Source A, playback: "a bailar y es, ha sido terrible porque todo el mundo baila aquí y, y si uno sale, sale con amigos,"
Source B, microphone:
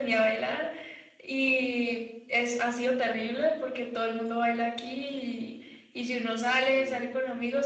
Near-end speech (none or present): present